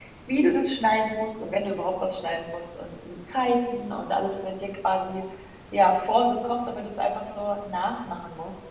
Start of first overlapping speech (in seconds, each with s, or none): none